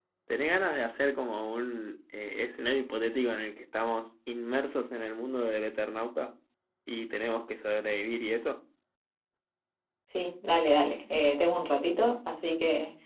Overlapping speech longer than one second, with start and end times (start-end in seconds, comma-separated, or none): none